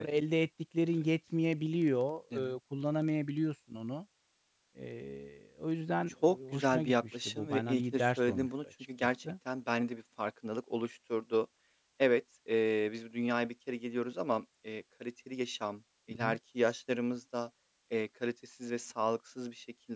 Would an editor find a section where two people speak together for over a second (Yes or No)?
Yes